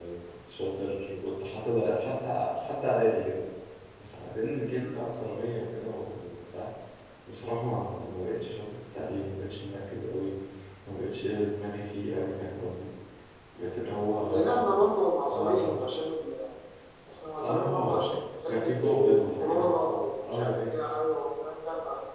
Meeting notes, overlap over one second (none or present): present